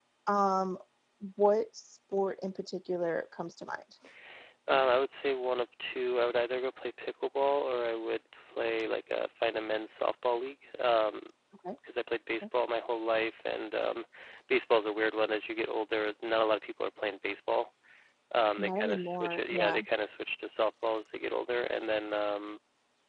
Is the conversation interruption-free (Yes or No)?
No